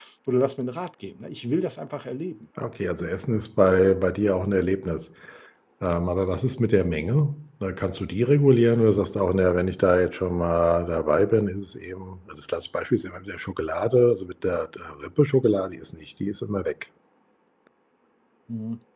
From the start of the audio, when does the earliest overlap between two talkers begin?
none

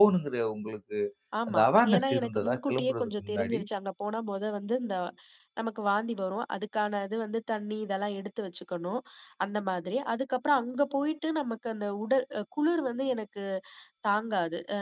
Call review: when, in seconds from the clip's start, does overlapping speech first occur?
1.5 s

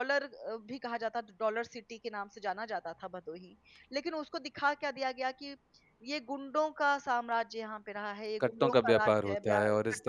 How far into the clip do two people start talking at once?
8.4 s

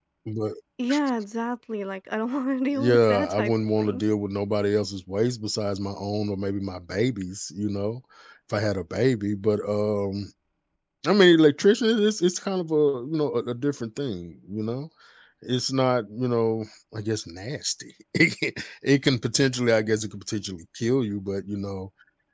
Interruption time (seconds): 2.7 s

